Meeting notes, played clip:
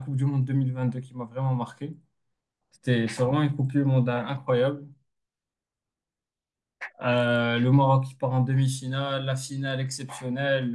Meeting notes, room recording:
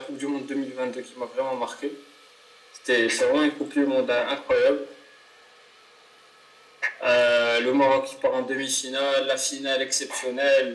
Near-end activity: none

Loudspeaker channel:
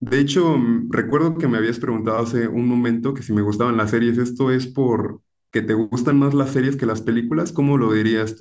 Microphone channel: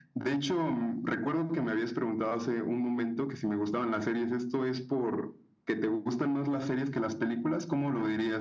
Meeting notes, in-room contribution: none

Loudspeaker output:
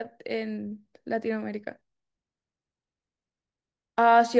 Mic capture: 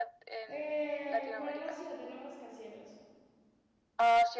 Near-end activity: present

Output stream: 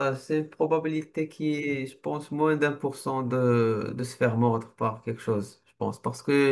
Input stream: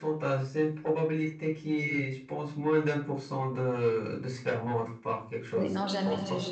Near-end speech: present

